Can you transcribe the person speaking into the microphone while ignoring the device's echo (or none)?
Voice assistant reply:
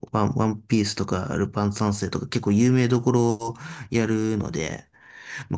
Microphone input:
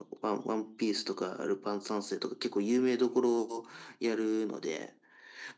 none